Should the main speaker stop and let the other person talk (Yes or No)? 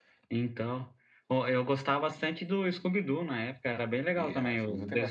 Yes